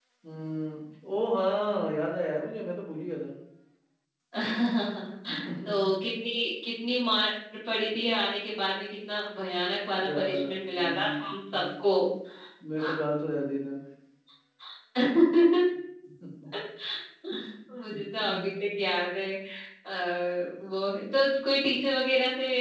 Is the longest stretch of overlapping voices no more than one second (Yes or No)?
No